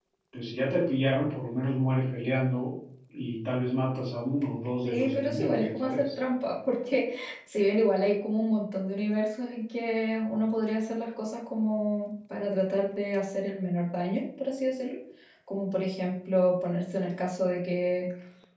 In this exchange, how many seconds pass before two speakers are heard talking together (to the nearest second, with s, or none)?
5 s